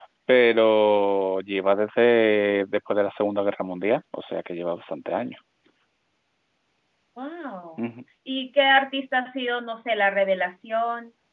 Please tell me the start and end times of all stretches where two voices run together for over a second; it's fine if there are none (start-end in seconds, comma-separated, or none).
none